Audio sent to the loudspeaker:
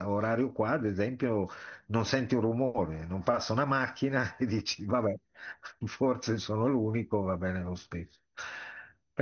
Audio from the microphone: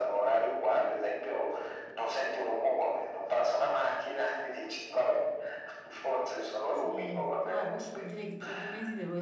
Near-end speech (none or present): present